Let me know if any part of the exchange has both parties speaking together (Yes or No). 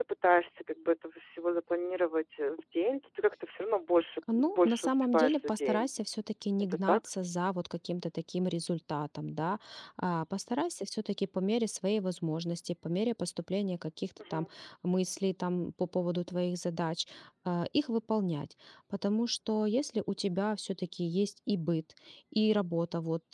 Yes